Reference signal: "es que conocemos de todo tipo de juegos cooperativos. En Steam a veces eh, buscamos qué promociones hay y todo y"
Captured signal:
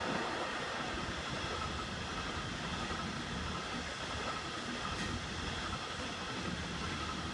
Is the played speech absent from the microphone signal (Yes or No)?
Yes